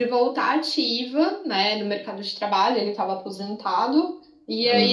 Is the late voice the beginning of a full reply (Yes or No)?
No